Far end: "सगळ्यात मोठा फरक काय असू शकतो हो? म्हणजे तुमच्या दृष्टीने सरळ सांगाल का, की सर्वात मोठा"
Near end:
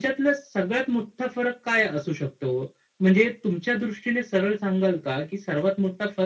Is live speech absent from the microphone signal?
Yes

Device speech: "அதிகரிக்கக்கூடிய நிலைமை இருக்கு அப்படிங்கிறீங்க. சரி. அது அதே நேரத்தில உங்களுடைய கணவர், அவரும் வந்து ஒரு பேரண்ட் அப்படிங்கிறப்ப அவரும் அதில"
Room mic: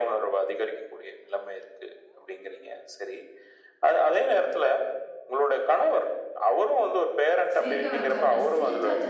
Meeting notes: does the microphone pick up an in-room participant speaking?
Yes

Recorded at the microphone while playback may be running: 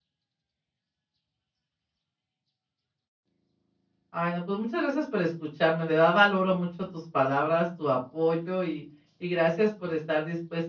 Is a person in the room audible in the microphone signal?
Yes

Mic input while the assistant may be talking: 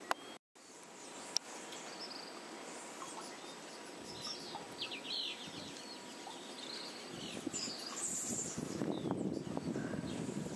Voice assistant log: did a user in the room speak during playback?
No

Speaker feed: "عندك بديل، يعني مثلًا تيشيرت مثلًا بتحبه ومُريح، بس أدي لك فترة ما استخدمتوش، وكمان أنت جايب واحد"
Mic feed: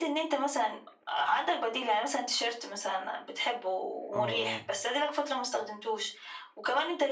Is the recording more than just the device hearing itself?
Yes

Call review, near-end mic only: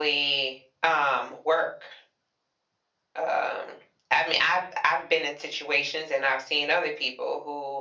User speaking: No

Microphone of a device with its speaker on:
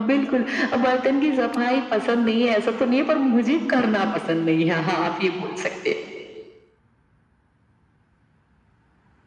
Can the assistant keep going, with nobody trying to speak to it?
Yes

